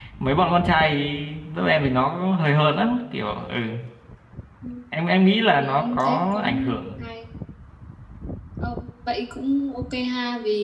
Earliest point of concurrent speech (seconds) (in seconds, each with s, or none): 5.6 s